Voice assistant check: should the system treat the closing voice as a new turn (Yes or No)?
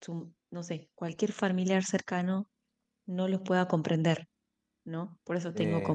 No